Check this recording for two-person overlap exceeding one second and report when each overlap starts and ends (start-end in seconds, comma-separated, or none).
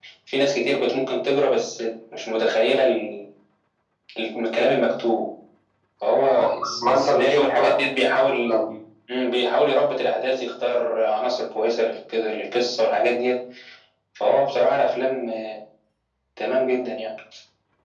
6.4-7.8